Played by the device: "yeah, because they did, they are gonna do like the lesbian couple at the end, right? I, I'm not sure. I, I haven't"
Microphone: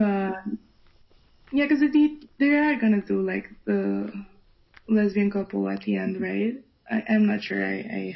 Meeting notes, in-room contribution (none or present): none